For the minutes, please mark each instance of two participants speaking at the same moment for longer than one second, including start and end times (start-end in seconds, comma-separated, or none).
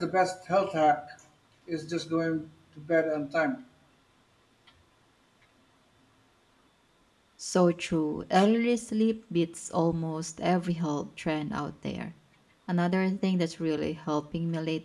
none